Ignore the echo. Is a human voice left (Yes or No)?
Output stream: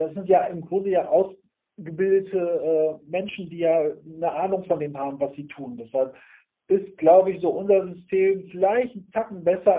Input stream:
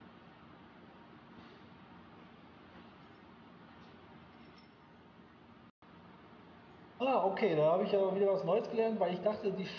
Yes